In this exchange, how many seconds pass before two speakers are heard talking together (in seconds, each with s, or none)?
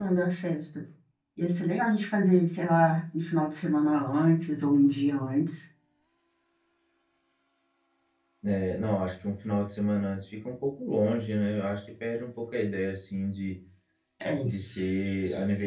none